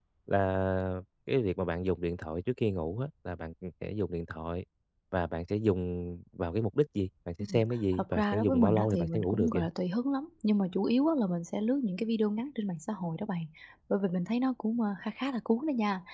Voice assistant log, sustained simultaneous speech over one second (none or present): present